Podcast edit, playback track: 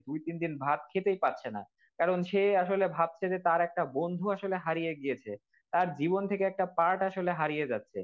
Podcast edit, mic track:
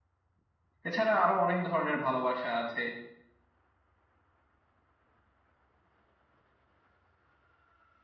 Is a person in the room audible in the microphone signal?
Yes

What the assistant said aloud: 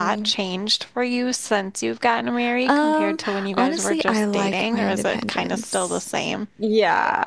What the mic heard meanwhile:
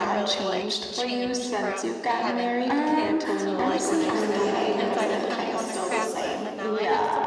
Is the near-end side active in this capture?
Yes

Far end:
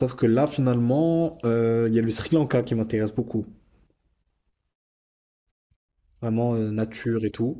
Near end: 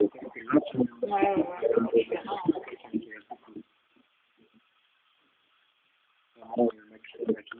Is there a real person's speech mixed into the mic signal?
Yes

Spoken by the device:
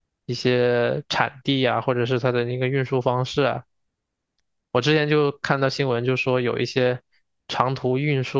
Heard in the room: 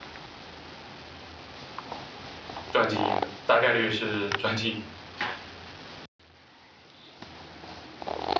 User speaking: Yes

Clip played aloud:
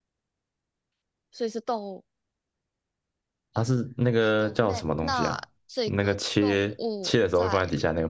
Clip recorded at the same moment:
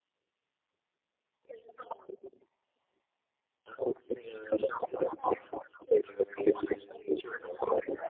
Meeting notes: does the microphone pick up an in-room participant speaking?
No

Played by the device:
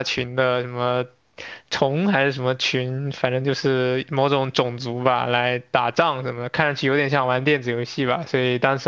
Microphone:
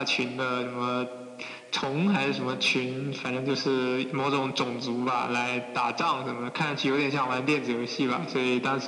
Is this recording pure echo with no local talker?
Yes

